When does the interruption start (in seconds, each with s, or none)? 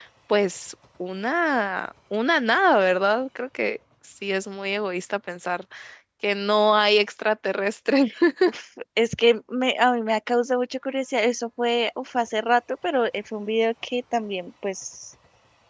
none